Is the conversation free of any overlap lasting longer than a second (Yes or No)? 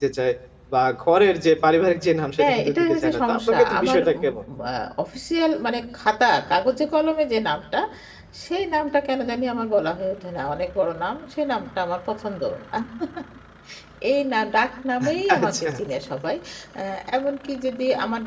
No